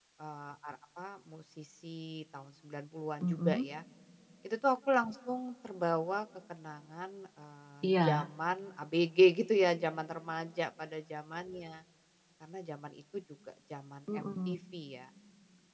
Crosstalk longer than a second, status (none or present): none